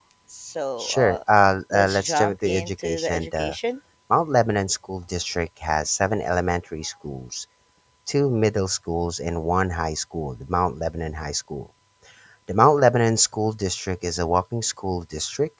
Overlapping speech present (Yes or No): Yes